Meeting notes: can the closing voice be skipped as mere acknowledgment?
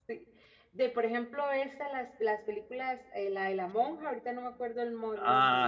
No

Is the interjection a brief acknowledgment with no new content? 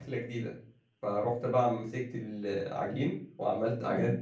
Yes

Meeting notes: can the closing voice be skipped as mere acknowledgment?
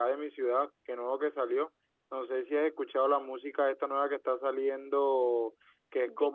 Yes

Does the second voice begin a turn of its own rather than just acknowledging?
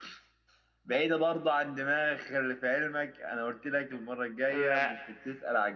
No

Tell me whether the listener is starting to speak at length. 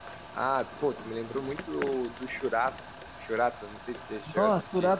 Yes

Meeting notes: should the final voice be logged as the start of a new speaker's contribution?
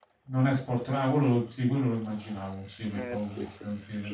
Yes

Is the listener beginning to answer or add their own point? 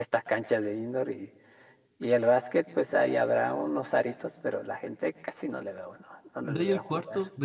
Yes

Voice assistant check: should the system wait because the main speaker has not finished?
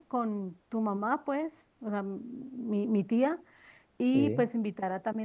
Yes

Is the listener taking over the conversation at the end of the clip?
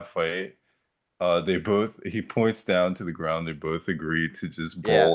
No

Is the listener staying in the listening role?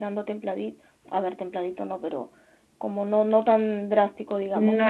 No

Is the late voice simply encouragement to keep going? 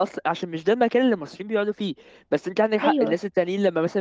Yes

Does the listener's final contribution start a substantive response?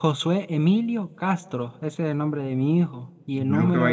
Yes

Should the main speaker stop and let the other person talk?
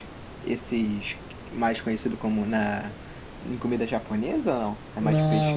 Yes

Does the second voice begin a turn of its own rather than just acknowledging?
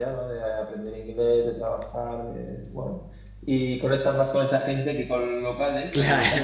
No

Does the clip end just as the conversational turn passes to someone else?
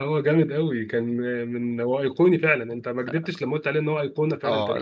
Yes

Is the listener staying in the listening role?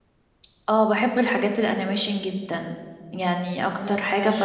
Yes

